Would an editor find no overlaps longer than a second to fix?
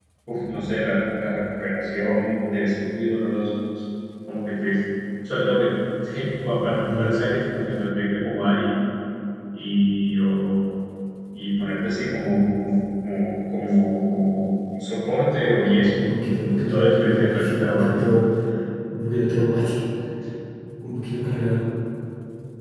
No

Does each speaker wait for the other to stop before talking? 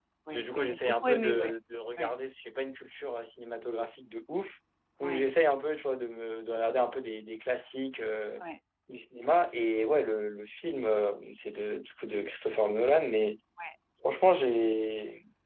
No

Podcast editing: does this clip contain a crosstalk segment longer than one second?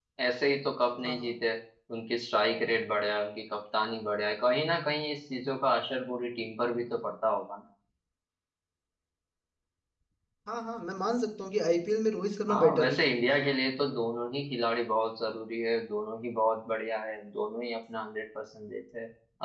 No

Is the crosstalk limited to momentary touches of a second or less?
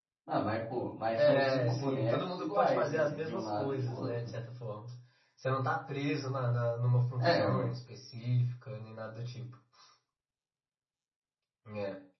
No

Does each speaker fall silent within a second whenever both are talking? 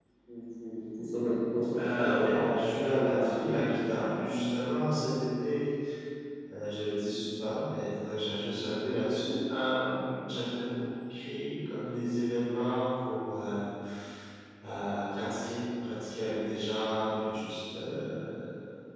No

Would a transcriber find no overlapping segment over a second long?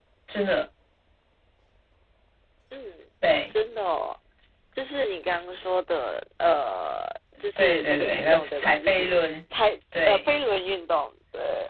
No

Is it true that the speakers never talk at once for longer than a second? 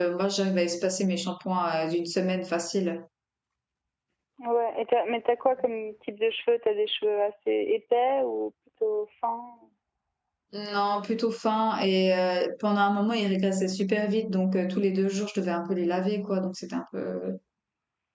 Yes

